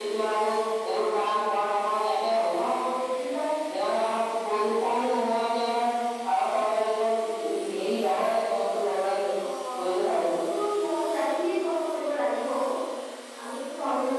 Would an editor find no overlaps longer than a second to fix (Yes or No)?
Yes